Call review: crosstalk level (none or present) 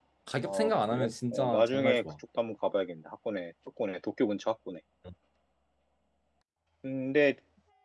present